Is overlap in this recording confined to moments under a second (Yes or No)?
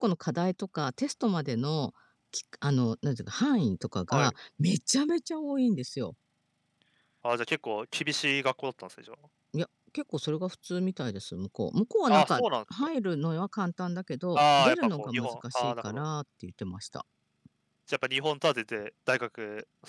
No